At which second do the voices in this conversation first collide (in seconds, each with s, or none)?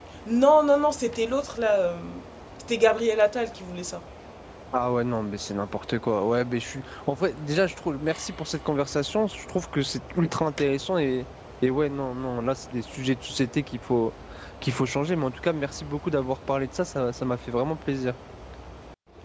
none